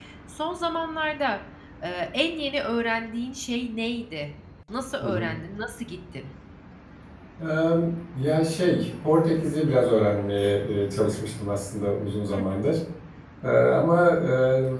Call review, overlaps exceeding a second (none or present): none